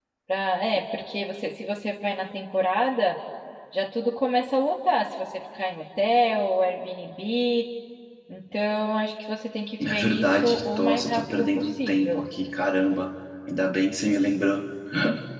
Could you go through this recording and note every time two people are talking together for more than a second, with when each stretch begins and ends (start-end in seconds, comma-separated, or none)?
9.8-12.2